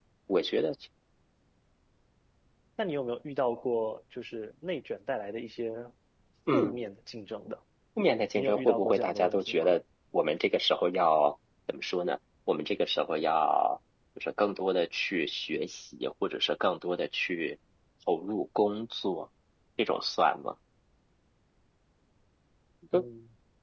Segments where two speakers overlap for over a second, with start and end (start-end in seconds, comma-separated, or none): 8.4-9.7